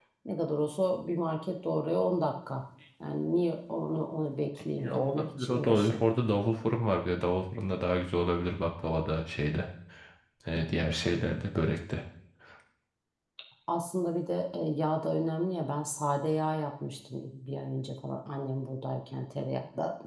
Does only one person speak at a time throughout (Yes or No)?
No